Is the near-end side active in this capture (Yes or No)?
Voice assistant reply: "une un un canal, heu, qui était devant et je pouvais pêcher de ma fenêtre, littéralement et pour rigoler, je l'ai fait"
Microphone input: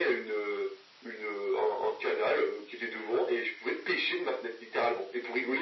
No